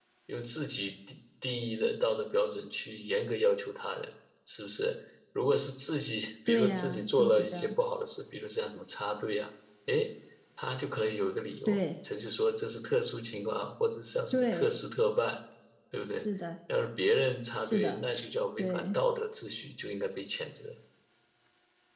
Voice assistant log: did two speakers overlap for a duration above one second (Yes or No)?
Yes